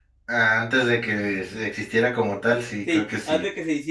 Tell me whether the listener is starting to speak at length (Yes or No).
Yes